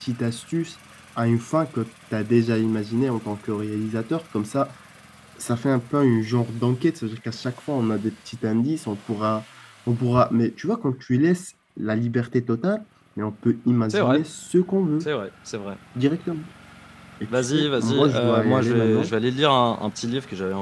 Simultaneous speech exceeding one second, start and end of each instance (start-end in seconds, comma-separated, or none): 17.3-19.1